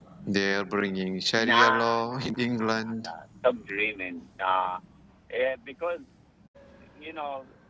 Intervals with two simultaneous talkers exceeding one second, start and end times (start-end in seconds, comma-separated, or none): 1.4-3.1